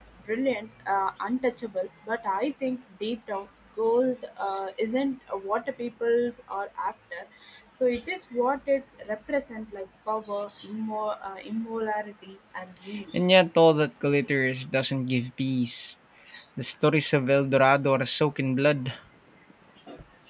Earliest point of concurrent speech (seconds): none

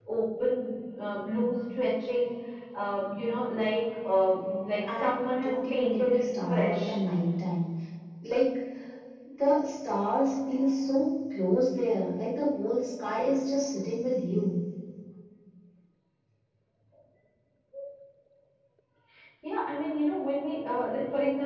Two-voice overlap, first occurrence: 4.8 s

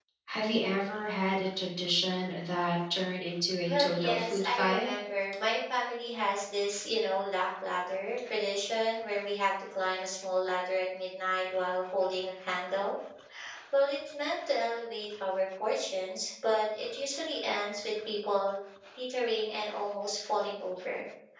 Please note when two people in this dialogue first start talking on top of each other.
3.6 s

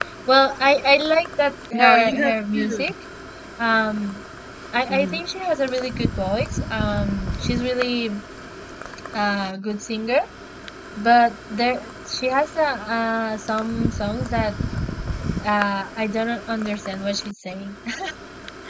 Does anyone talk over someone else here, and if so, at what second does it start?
1.7 s

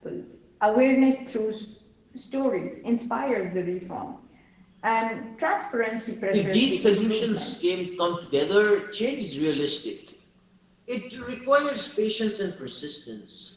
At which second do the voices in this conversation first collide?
6.3 s

